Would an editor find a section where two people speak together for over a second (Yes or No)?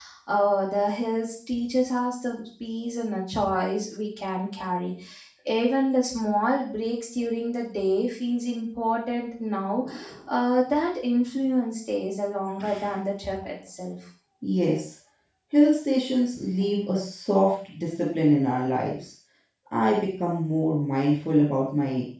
No